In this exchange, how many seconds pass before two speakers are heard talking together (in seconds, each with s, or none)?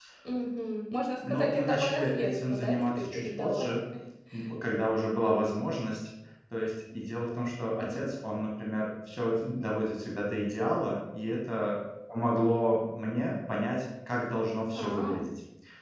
1.3 s